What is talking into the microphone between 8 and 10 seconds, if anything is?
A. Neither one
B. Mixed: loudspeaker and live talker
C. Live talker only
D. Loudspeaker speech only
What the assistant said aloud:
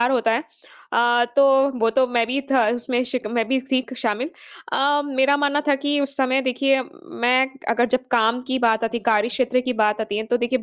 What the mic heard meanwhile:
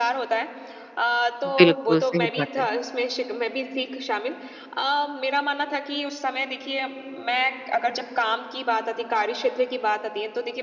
D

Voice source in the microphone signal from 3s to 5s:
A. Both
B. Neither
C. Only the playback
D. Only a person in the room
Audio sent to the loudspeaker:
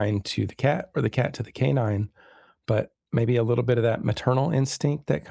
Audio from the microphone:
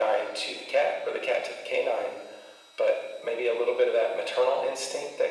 C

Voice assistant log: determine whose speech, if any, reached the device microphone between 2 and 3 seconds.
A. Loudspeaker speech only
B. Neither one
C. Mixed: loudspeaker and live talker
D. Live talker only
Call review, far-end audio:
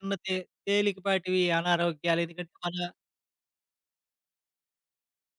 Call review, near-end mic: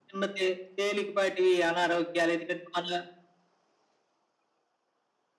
A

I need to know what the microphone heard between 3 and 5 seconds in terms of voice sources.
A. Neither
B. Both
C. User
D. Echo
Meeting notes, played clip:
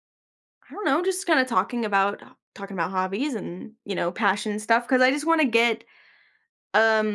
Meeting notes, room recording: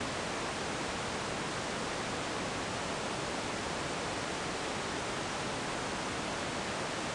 A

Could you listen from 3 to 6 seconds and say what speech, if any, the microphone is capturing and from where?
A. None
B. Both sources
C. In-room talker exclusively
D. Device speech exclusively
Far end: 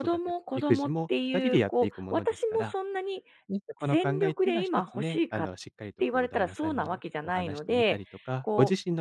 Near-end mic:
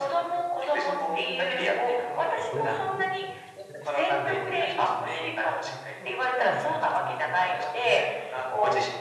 B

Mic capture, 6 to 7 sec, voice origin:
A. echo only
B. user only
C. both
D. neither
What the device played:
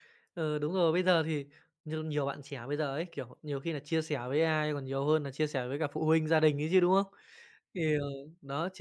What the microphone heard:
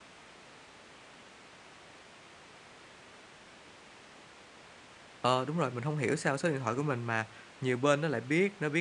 B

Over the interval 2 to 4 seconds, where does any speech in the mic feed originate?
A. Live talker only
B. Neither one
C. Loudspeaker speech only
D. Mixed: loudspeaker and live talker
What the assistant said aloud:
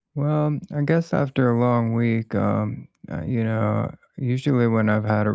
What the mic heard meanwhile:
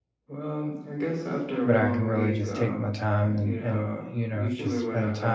D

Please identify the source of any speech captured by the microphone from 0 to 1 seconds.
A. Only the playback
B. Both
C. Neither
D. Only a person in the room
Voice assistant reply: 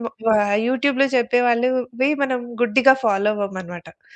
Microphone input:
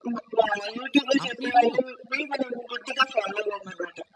A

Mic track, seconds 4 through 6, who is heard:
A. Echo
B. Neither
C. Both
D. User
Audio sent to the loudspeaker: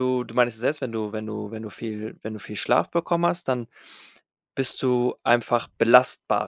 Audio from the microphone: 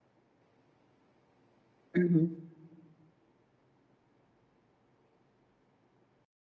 B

